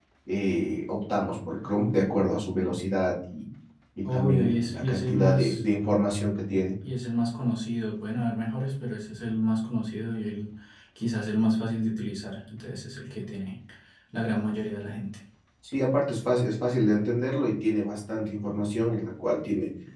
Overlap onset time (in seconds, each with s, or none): 4.0 s